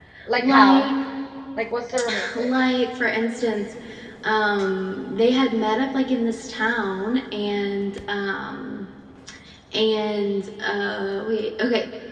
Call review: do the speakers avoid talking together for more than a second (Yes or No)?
Yes